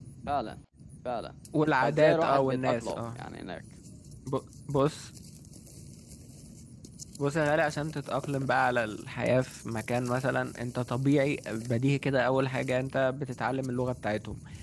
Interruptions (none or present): present